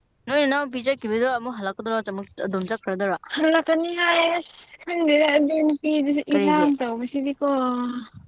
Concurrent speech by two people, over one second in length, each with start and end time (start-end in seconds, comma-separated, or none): none